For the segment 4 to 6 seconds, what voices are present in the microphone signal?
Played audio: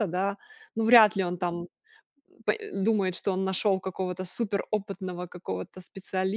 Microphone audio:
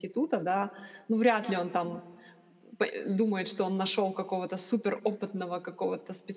echo only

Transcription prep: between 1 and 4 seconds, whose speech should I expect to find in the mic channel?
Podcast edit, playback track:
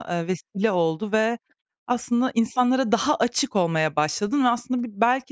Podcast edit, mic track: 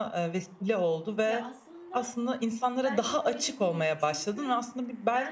both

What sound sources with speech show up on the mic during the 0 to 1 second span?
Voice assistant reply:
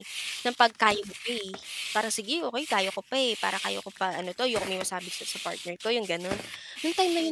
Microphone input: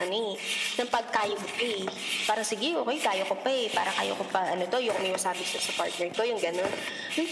echo only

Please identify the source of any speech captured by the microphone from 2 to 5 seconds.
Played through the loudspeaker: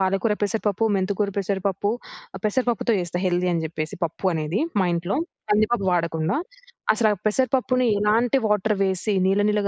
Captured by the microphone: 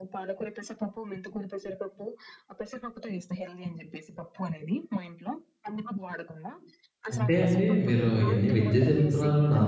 echo only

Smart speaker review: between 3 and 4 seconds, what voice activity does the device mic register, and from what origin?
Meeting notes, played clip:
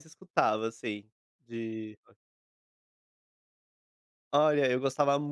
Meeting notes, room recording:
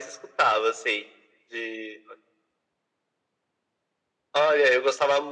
neither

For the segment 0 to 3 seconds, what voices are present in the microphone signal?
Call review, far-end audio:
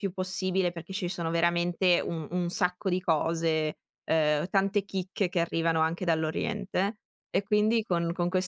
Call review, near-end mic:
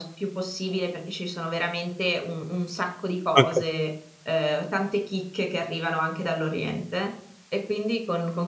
echo only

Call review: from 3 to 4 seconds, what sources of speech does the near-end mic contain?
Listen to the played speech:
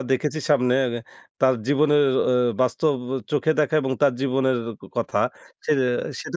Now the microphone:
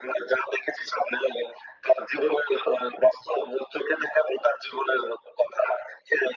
echo only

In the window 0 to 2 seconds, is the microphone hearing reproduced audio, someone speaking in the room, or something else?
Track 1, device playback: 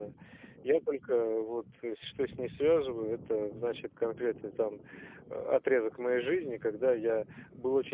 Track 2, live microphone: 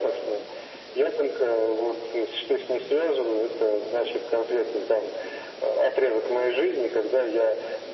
echo only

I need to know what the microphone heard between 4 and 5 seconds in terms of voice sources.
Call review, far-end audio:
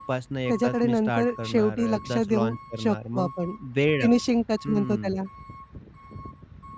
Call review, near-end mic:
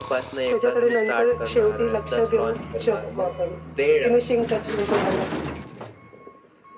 echo only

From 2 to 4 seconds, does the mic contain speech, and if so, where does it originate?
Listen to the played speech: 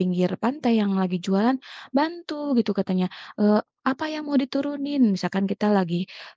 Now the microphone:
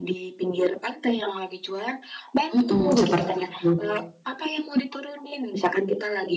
both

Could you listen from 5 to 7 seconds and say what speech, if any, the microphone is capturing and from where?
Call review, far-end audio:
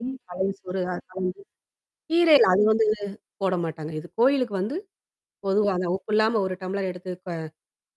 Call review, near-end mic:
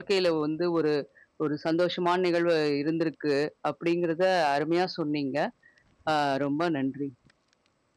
user only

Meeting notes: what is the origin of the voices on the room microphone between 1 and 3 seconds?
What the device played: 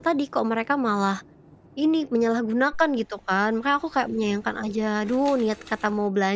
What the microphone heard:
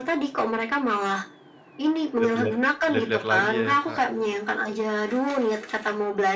both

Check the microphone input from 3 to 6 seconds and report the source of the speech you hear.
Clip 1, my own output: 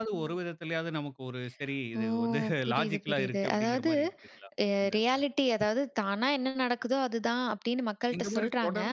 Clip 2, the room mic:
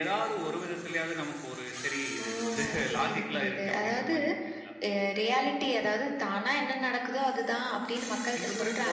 echo only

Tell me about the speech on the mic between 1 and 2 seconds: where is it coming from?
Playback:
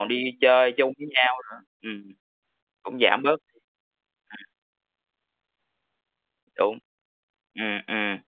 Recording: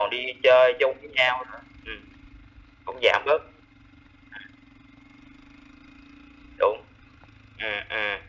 echo only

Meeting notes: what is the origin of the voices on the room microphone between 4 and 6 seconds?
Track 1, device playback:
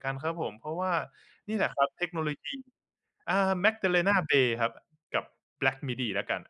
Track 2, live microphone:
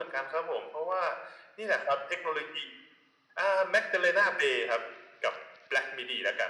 echo only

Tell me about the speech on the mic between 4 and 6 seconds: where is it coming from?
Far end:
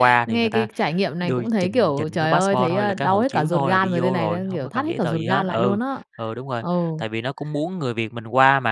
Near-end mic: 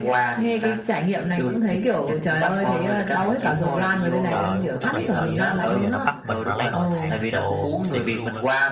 both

